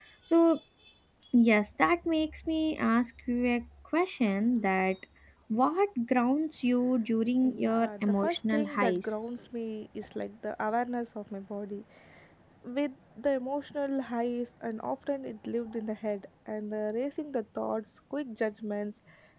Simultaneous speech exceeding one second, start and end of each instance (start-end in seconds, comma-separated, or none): 7.4-9.4